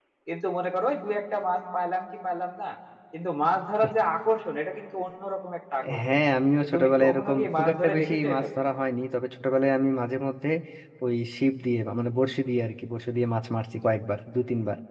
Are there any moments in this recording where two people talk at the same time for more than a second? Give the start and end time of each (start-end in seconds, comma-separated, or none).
6.6-8.6